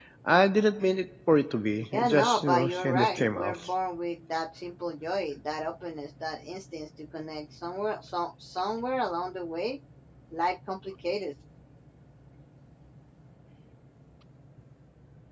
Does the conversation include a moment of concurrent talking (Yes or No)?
Yes